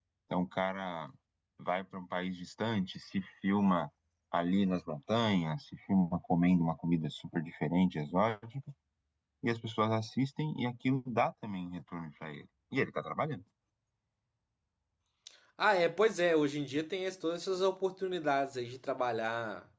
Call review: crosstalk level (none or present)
none